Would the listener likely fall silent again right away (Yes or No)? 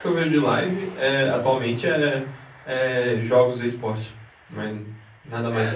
No